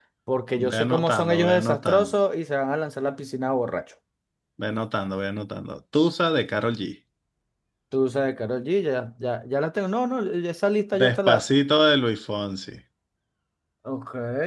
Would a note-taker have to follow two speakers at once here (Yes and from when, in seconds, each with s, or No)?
Yes, from 0.7 s